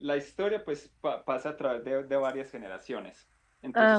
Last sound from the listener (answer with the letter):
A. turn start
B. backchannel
B